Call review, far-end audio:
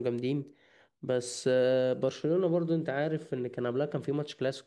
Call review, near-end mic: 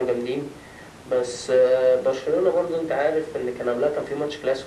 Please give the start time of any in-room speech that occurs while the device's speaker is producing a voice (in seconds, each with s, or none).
none